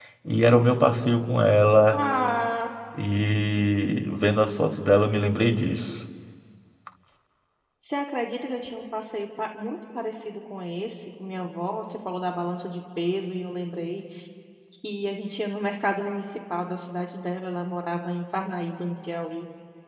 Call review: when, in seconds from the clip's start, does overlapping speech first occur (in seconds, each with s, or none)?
none